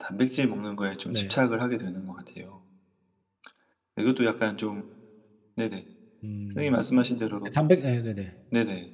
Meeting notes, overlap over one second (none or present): none